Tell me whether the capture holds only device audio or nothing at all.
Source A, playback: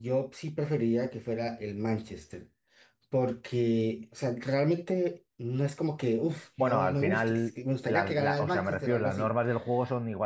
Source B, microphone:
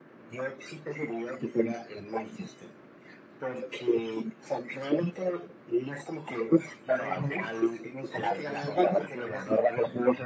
Yes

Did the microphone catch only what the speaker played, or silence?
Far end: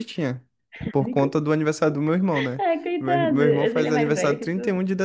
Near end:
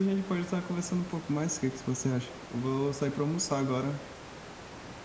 No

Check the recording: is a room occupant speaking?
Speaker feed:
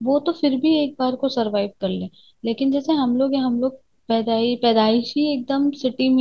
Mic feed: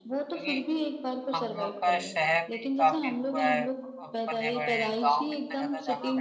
Yes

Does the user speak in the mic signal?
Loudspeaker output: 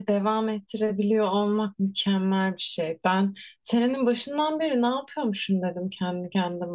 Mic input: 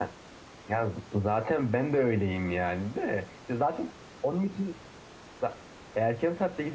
Yes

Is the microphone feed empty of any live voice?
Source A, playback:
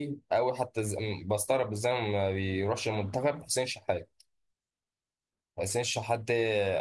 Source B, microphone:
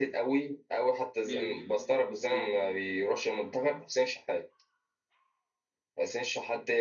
No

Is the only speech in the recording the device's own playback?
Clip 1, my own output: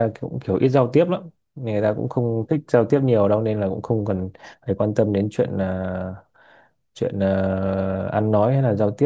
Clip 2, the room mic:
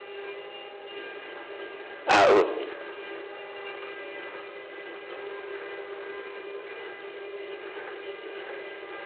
No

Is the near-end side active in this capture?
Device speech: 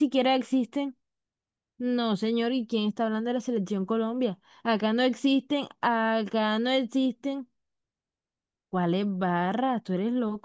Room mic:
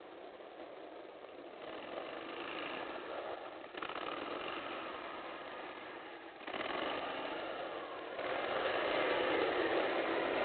No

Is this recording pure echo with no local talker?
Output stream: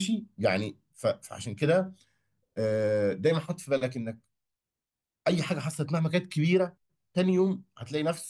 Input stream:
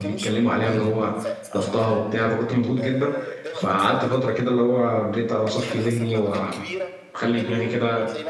No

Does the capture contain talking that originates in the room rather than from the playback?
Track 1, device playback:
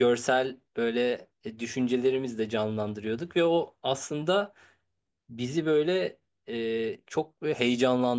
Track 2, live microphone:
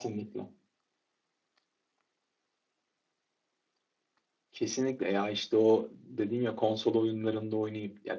Yes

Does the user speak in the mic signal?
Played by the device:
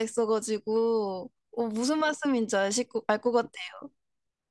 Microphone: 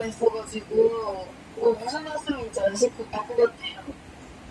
No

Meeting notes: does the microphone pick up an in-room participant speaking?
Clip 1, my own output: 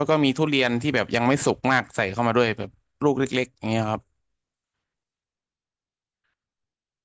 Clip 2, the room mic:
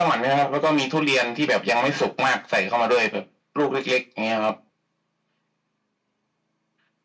No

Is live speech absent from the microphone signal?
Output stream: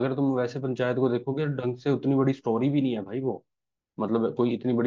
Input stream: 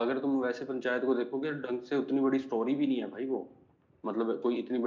Yes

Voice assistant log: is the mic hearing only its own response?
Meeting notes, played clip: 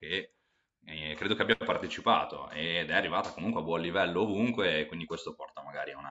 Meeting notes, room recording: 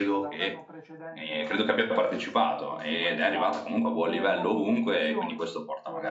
No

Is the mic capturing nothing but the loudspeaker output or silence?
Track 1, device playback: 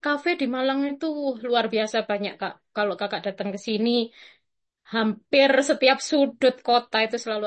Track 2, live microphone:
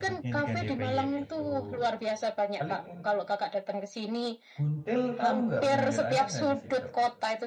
No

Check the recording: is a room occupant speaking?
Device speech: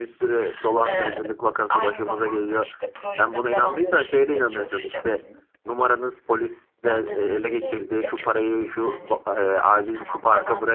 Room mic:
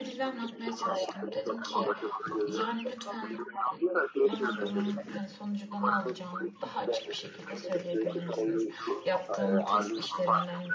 Yes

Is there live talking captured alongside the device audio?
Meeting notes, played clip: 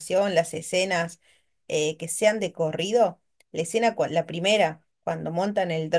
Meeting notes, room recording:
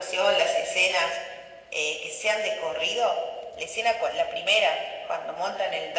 No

